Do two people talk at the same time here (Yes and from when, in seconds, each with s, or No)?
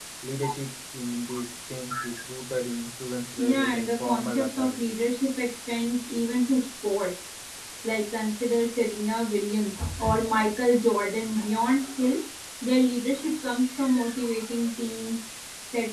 Yes, from 3.4 s